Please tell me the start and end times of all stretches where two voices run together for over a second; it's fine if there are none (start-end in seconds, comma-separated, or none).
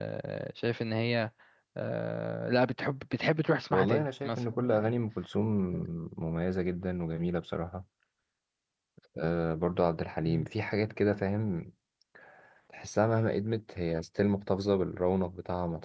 3.7-5.0